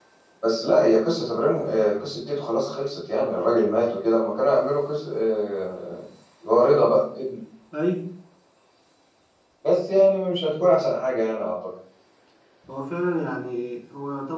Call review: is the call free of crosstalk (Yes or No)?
Yes